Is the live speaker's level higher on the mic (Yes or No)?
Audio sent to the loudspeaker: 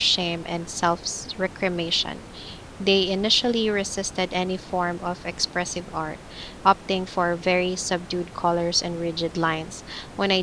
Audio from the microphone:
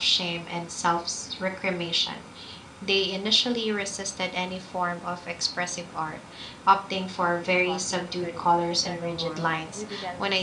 No